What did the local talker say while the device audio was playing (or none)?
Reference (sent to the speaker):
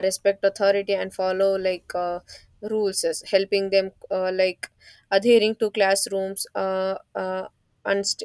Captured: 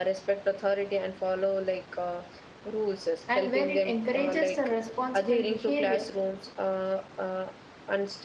And where it encourages the responsible behavior,